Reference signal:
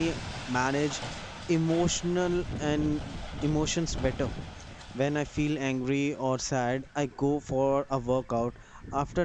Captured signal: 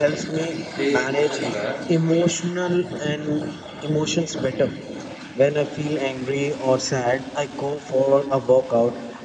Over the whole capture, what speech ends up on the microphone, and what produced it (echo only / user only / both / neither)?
both